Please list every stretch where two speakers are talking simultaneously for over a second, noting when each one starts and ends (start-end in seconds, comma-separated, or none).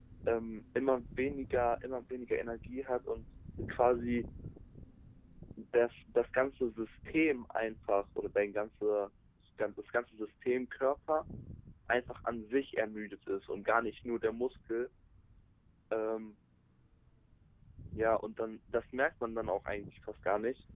none